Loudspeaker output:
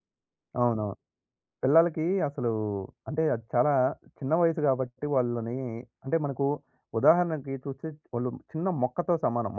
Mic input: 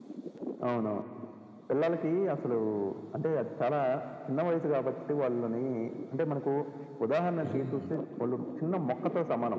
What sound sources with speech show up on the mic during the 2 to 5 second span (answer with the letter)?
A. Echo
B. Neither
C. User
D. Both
A